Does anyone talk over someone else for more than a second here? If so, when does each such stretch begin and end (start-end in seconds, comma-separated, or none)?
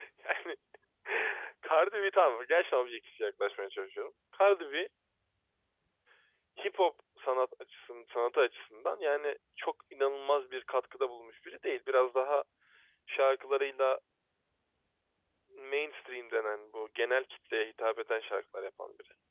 none